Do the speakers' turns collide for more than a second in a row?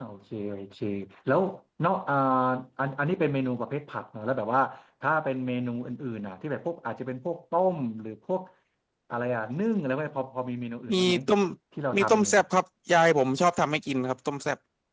No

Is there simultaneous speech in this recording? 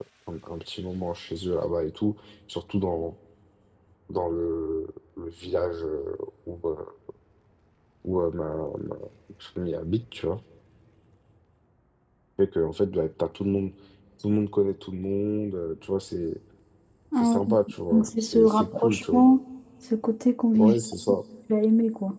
Yes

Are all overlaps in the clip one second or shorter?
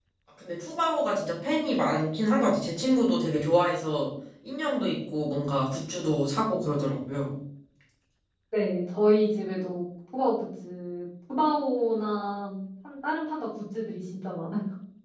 Yes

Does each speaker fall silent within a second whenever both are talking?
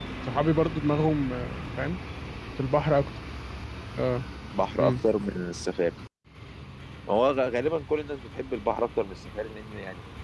Yes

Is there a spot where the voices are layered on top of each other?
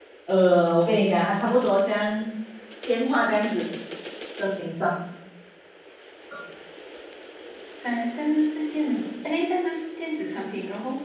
No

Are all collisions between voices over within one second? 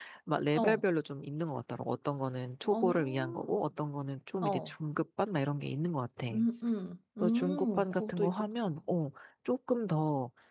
No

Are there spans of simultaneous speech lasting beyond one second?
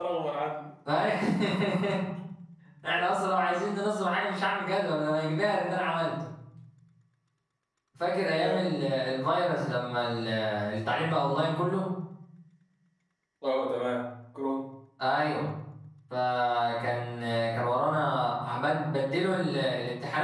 No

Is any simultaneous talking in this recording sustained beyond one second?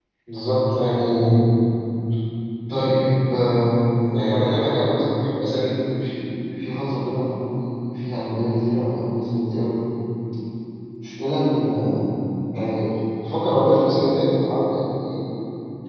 No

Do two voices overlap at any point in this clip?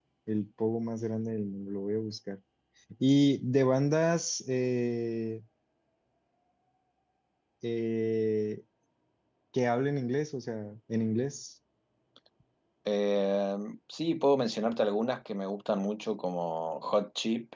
No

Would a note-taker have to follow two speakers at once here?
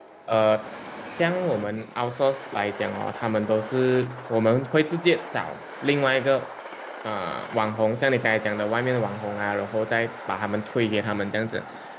No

